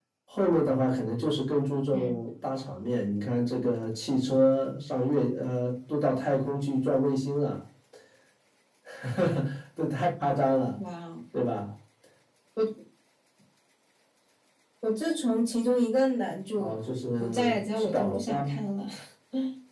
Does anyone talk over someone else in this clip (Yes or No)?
Yes